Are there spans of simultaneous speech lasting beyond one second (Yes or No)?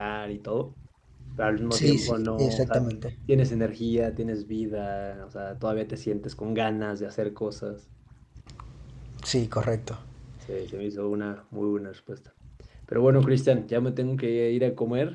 Yes